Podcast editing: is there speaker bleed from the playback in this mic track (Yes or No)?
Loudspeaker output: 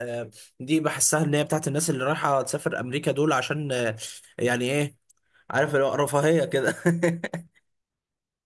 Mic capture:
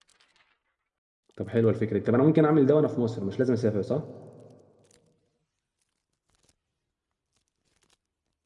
No